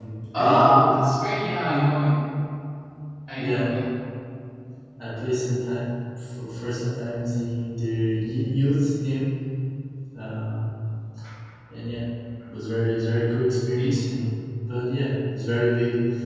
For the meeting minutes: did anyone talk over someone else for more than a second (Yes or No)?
No